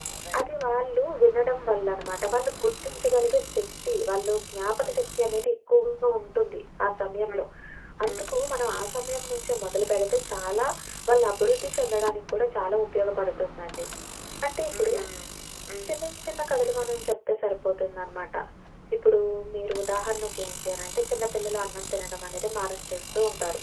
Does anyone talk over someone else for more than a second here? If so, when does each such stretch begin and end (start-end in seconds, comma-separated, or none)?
none